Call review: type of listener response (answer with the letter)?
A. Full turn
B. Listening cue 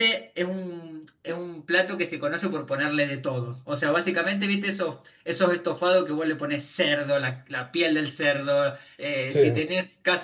B